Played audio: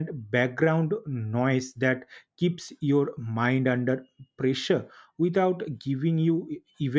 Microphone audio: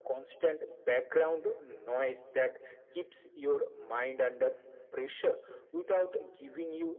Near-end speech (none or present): none